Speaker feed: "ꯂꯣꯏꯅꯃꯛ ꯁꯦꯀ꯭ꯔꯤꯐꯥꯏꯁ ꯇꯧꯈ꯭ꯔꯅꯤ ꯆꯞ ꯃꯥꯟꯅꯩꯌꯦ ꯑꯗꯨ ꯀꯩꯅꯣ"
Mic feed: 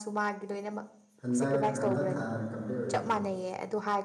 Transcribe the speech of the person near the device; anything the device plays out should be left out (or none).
ꯍꯟꯗꯛ ꯍꯟꯗꯛ ꯊꯥꯅ ꯀꯝꯄ꯭ꯂꯤꯠ ꯑꯣꯏꯔꯤꯕ